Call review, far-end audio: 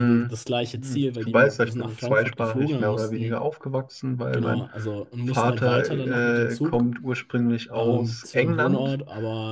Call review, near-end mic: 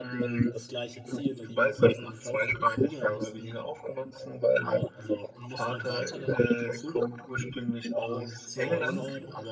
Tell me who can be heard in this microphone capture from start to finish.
both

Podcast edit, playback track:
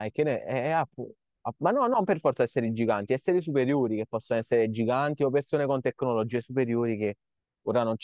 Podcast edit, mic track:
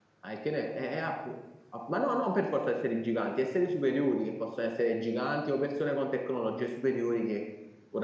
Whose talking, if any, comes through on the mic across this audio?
echo only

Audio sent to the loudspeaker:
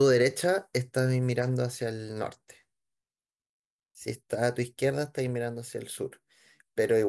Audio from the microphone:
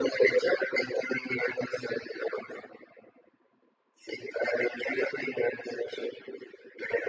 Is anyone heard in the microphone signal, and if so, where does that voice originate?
echo only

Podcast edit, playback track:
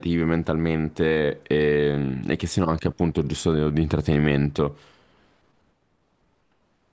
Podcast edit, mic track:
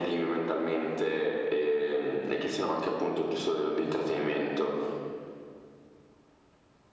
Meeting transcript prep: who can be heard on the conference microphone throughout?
echo only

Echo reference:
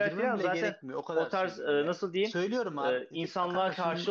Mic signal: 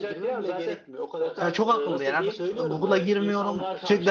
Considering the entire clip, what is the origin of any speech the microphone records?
both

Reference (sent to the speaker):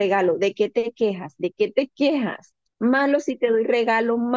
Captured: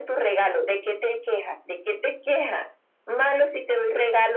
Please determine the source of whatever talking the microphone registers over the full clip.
echo only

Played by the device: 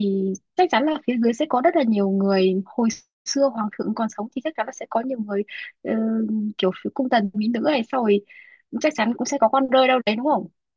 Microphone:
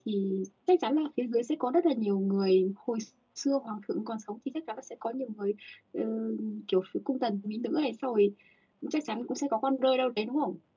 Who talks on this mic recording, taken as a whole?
echo only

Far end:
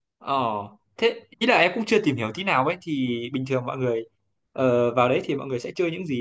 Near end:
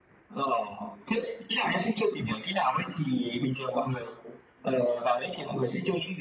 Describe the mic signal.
echo only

